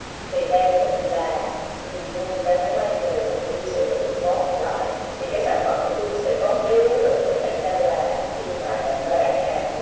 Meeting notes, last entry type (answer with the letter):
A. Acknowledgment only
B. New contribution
A